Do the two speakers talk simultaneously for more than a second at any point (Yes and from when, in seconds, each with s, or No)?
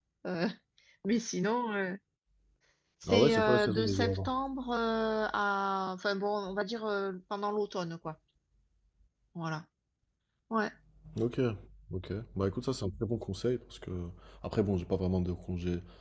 Yes, from 3.1 s